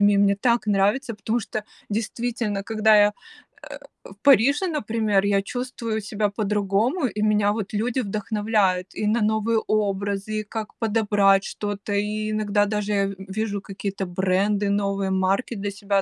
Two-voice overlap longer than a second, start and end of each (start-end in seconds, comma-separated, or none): none